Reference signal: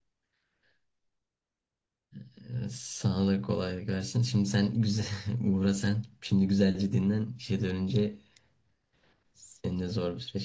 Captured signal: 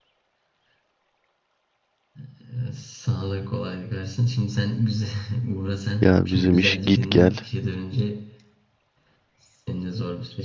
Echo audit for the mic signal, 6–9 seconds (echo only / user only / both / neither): both